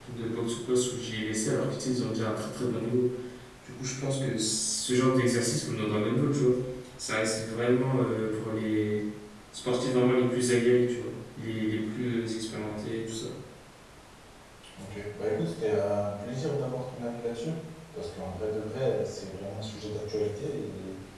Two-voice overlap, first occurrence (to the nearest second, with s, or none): none